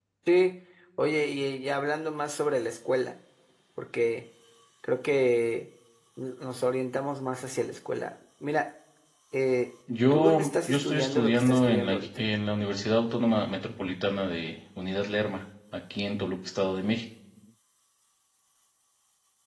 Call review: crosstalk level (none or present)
present